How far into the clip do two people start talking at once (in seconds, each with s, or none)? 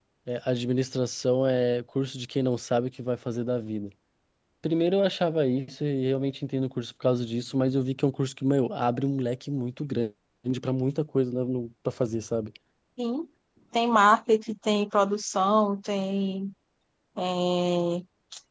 none